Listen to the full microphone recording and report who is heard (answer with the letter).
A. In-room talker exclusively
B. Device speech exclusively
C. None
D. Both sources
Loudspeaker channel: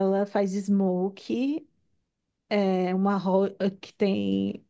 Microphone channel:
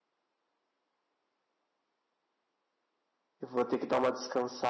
A